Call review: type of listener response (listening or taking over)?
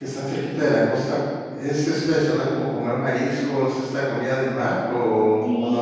taking over